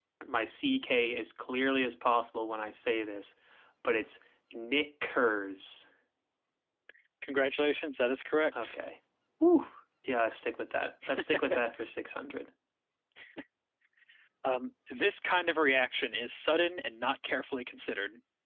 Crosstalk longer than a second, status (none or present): none